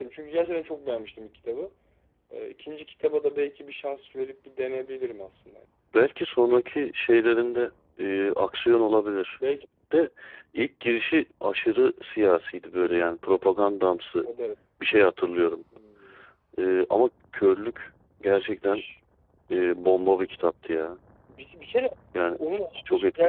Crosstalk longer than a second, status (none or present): none